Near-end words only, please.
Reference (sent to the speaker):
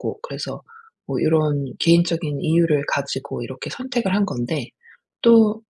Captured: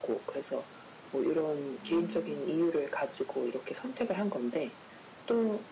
음.

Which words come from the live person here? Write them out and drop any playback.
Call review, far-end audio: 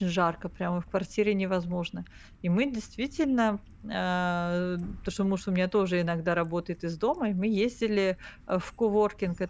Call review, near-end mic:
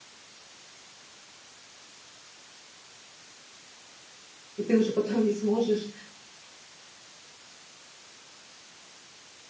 И ты уже потом не сможешь

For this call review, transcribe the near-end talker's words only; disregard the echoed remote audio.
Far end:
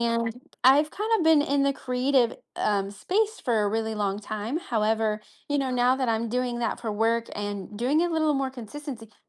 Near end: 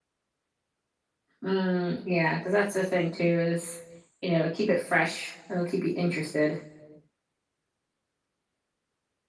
Mm, yeah. Because that's the thing, too, is, you know, keep it fresh. It'll keep you interested.

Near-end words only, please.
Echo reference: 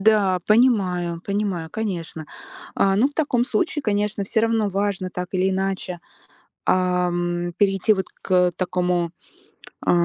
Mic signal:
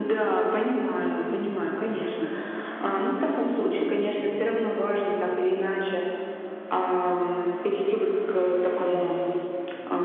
none

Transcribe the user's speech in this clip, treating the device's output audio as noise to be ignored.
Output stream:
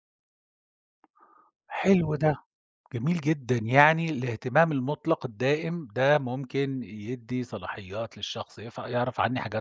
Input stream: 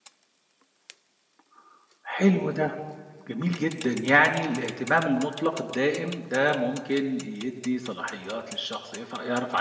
none

